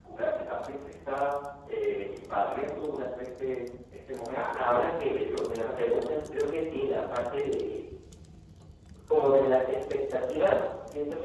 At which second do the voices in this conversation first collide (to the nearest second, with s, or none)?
4 s